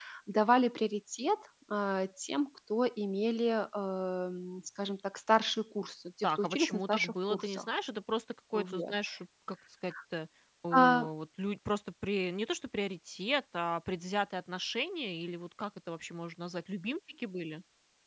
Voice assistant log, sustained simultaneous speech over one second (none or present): present